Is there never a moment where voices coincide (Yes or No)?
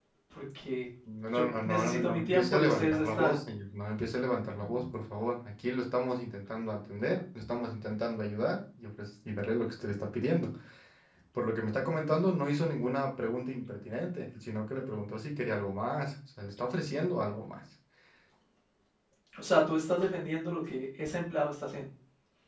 No